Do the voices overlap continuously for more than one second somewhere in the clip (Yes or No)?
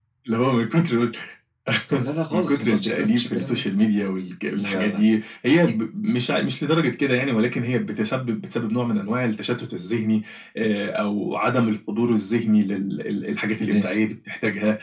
Yes